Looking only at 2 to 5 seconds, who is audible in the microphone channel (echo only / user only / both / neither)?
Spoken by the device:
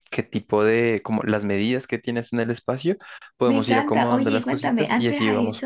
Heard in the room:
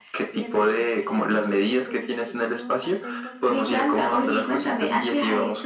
both